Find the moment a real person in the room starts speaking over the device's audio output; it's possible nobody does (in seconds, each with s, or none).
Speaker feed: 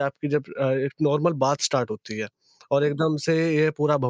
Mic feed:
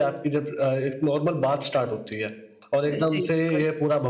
2.9 s